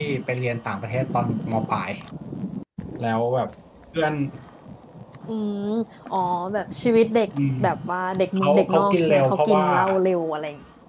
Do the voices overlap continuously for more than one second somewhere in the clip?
Yes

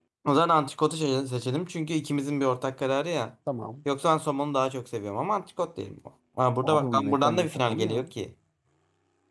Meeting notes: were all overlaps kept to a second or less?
No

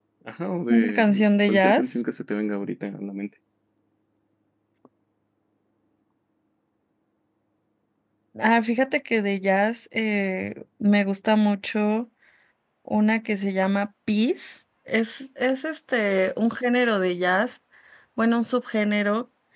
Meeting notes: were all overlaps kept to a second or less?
No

